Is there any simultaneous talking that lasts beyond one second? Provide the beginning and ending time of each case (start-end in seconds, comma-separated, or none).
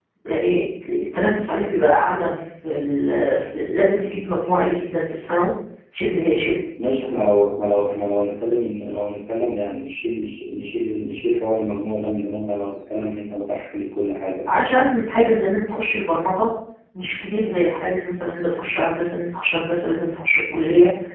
none